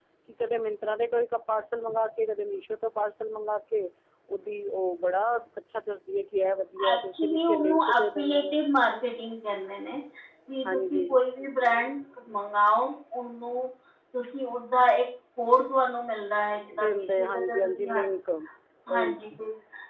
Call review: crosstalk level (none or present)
present